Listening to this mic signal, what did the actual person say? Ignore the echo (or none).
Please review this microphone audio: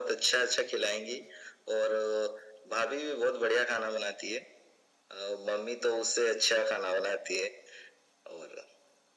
none